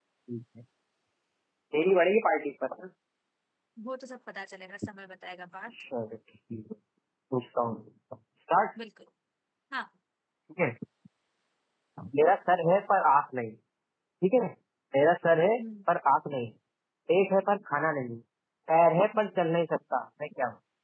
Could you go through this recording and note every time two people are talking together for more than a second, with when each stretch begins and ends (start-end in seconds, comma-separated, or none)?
none